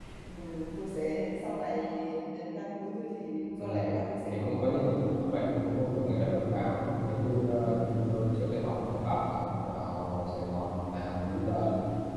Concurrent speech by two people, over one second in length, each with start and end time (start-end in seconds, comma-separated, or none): 4.3-5.5